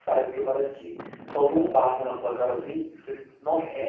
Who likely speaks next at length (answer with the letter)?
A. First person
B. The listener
B